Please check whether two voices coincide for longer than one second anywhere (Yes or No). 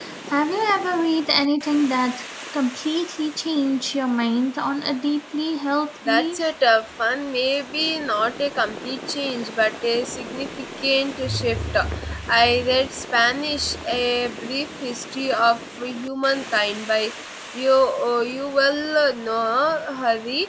No